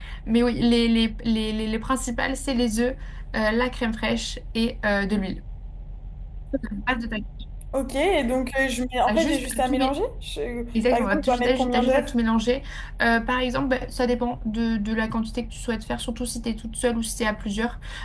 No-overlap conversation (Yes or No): No